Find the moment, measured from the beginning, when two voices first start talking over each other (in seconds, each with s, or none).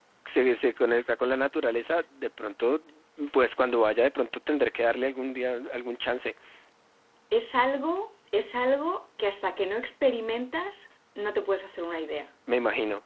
none